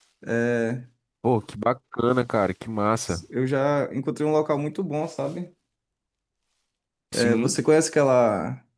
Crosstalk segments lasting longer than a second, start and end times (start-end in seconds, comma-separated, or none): none